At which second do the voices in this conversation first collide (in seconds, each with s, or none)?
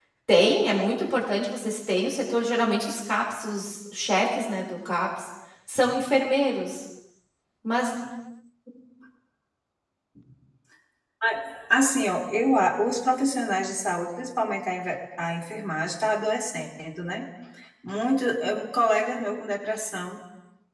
none